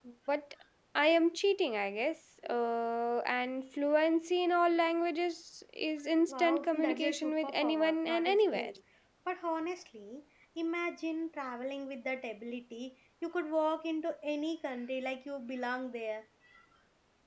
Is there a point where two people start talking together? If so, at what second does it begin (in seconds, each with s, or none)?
6.3 s